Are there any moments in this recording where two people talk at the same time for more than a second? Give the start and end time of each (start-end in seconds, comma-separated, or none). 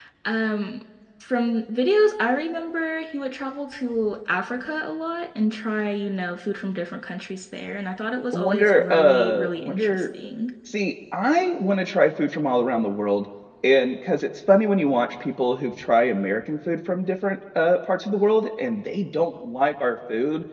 8.3-10.1